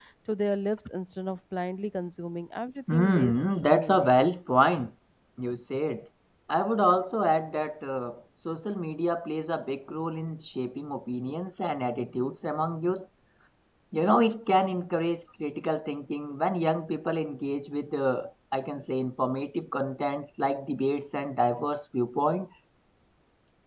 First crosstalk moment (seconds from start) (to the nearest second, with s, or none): 3 s